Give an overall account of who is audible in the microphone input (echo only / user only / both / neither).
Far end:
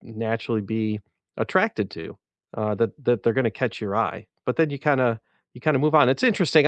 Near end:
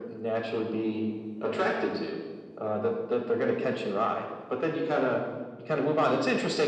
echo only